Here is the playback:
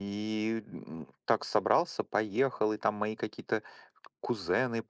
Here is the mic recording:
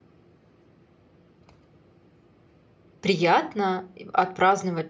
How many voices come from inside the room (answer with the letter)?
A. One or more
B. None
A